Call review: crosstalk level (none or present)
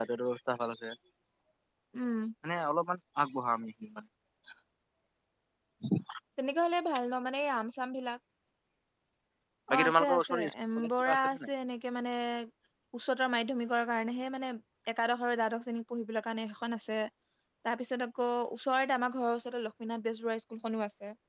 present